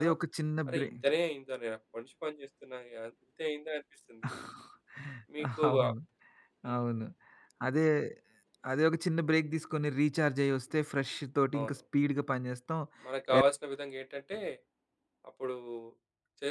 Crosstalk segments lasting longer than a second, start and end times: none

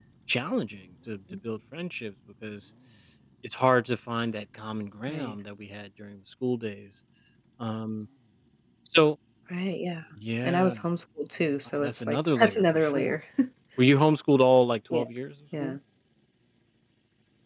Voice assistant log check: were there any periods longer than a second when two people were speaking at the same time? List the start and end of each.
11.8-13.2

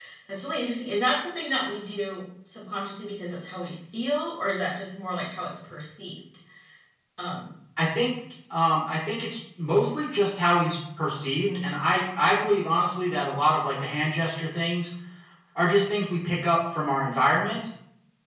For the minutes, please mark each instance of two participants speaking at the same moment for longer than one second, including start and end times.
none

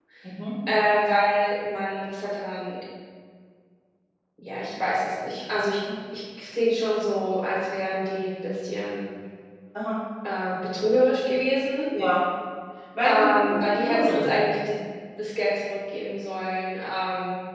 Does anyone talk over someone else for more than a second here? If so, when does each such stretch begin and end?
13.0-14.4

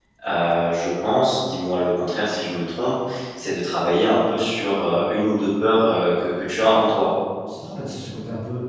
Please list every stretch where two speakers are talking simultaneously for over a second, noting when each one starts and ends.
none

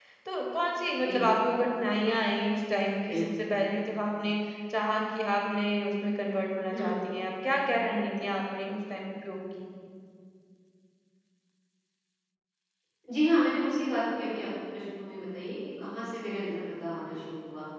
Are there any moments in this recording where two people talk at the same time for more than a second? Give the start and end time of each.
none

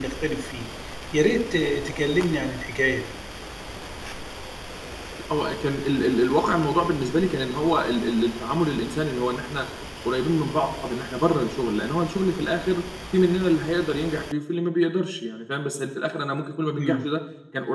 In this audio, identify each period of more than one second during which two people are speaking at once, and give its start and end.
none

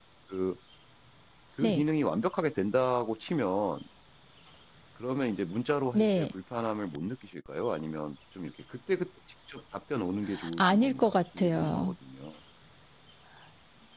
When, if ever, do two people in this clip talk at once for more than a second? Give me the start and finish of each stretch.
10.6-11.9

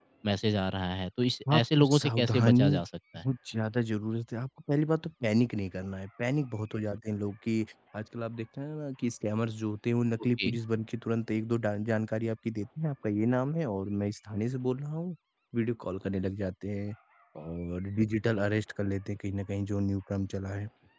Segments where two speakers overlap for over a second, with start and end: 1.5-2.8

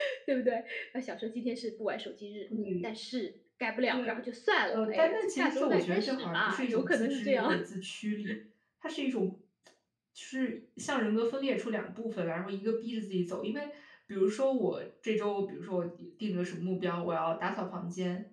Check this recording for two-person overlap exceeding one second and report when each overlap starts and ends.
4.7-7.5

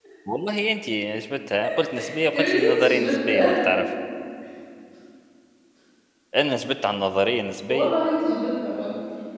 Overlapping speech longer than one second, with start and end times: 2.3-3.6

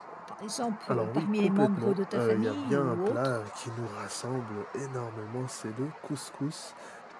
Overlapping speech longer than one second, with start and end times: 0.9-3.4

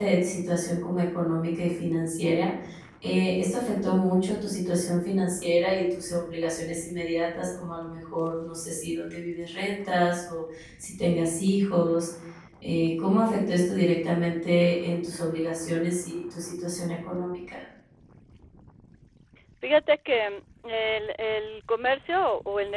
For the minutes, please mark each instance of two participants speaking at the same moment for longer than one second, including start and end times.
none

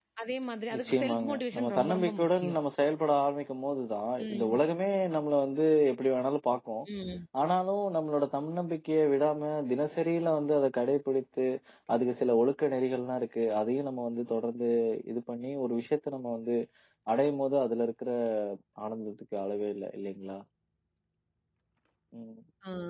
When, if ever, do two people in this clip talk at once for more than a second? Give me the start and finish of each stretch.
0.8-2.6

